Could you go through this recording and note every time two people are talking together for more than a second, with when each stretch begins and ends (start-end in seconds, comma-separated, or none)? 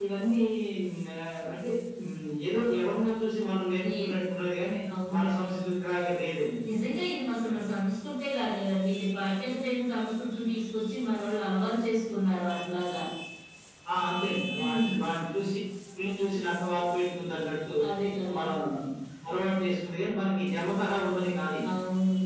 none